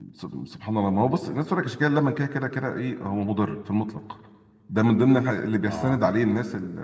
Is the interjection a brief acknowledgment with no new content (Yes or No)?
Yes